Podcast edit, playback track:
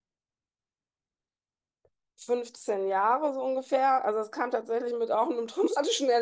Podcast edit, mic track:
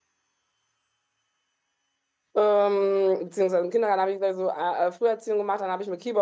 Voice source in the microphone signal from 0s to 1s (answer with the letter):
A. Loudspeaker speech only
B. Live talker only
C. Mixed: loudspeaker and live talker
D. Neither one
D